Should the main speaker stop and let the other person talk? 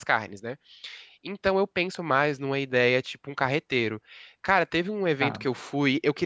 No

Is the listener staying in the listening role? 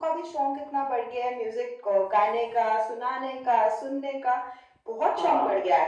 No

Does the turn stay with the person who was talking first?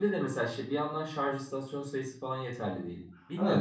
No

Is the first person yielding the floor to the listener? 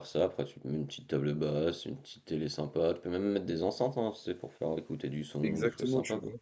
Yes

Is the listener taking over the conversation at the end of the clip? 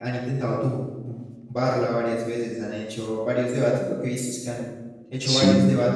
No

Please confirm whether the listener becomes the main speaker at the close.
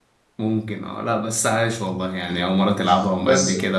Yes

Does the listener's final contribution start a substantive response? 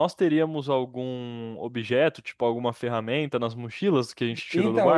Yes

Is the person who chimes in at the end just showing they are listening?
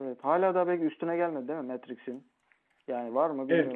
No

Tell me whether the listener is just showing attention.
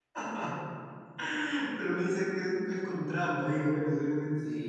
No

